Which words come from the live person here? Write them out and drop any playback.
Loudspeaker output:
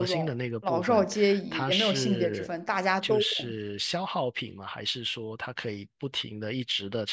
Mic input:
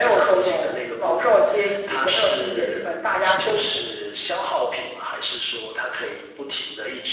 是的，

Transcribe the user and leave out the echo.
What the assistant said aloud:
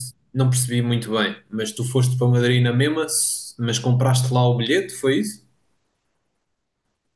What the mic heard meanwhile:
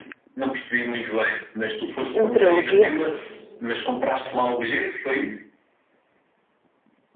De meteorologia?

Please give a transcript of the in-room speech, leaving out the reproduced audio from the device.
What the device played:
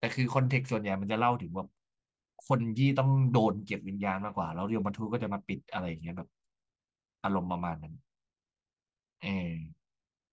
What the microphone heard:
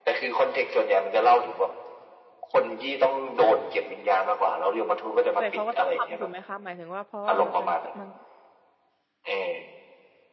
แต่เขาก็ต้องทำถูกไหมคะหมายถึงว่าเพราะว่ามันเป็นมัน

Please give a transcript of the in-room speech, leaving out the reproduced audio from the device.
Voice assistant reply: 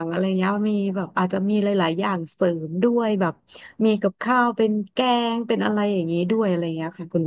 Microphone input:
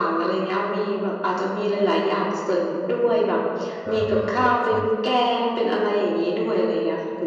อ่าอ่าอ่าใช่

